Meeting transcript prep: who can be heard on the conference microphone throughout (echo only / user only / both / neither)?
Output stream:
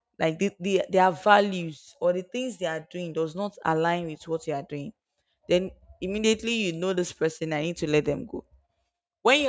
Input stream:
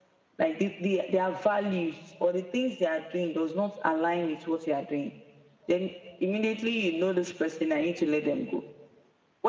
echo only